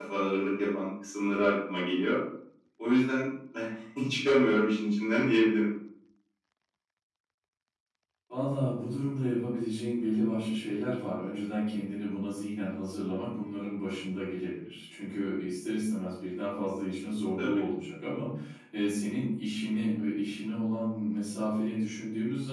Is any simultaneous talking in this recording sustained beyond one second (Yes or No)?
No